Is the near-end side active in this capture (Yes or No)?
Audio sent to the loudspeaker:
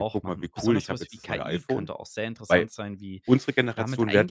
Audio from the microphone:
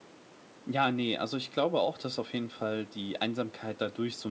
Yes